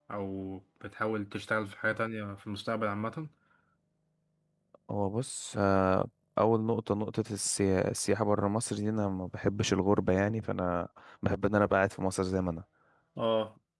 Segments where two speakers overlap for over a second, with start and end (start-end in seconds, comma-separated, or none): none